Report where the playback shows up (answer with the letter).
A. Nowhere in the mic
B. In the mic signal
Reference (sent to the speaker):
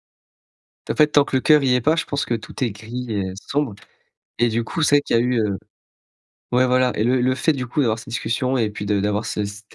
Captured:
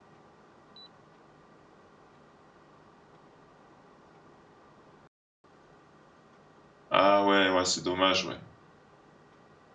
A